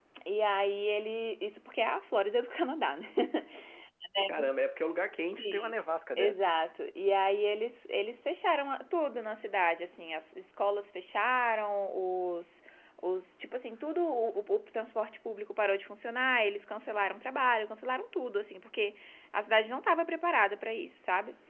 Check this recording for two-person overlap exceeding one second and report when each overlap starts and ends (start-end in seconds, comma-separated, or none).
none